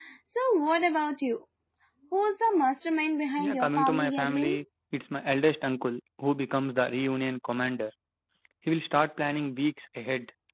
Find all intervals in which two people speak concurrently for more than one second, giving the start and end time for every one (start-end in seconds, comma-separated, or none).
3.4-4.6